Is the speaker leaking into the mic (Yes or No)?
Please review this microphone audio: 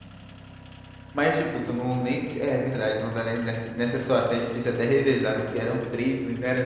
No